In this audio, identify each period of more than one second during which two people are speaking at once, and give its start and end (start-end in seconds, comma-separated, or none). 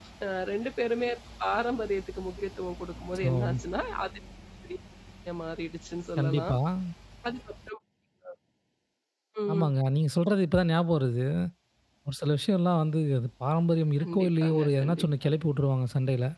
14.0-15.3